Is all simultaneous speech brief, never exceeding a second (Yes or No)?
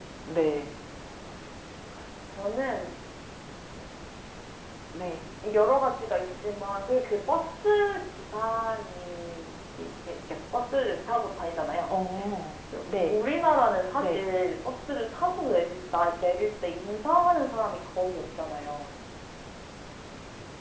Yes